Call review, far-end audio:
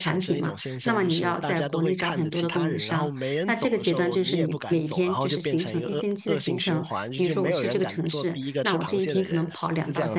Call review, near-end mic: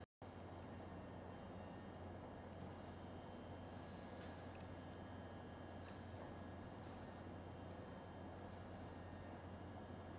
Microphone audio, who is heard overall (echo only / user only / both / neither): neither